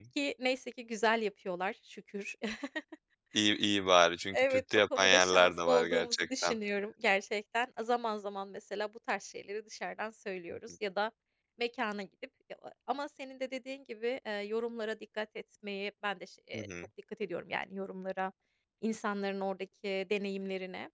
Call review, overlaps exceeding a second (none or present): present